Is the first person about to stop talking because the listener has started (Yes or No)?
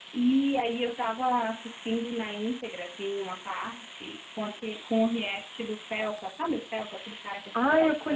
Yes